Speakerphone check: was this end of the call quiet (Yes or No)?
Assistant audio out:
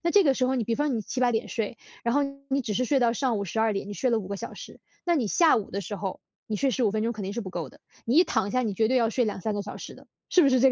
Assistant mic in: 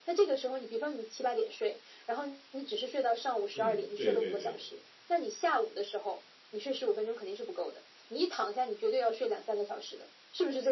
No